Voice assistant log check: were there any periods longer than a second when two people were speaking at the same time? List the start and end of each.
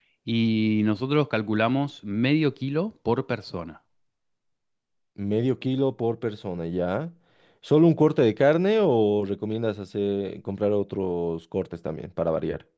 none

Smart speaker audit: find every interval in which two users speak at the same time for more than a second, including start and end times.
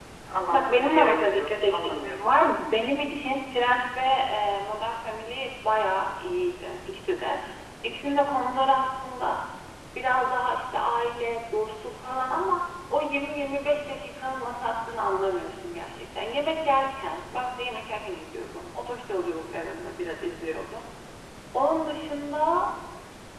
0.5-2.3

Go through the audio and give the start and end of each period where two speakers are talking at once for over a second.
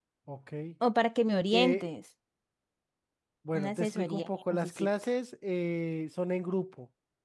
3.5-4.9

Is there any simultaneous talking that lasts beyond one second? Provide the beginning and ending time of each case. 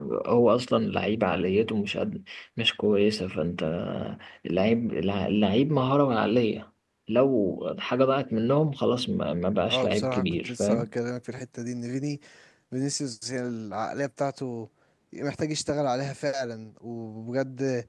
9.7-10.9

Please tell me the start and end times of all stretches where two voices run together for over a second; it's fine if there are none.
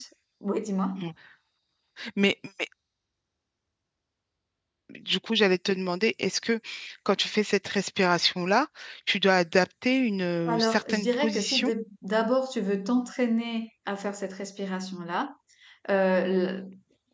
10.5-11.7

